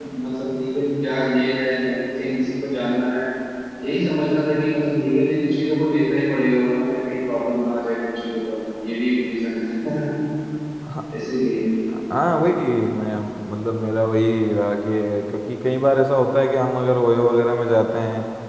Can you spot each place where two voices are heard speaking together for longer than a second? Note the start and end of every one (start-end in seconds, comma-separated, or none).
none